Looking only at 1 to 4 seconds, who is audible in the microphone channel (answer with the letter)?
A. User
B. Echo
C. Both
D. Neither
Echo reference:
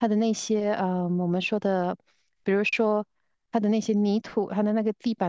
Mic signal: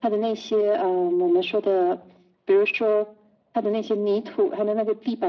B